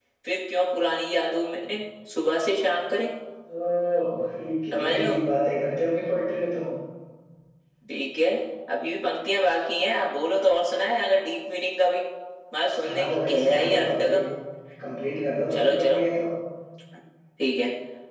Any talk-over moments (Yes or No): Yes